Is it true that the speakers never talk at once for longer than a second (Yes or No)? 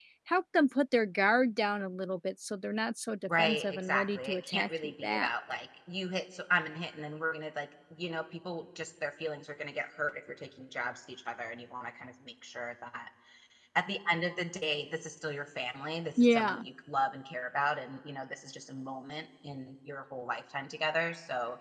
No